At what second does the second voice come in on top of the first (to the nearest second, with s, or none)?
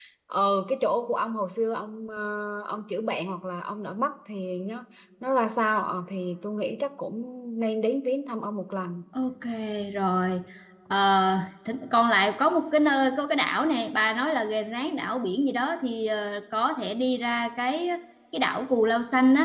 none